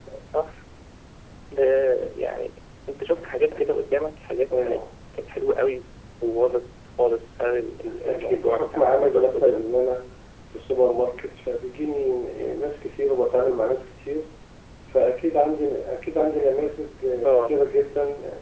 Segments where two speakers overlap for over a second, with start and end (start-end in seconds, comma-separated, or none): 8.0-9.7